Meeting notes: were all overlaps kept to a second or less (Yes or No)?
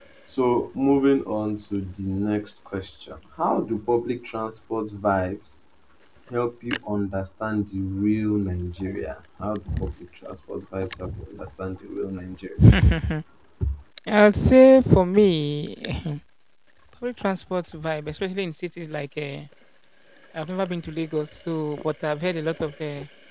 Yes